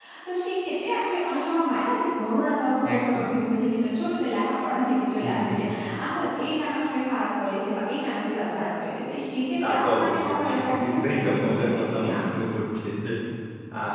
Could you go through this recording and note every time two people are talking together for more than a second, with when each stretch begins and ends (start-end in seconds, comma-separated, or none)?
9.6-12.2